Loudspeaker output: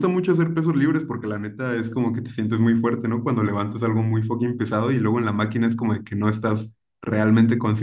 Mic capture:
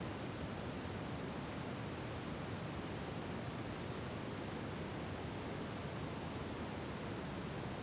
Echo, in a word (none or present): none